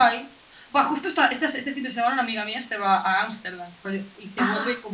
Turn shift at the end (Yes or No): No